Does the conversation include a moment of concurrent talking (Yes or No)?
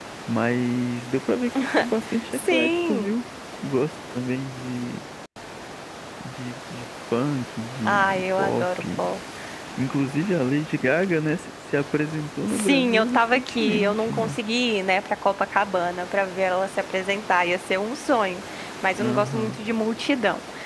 Yes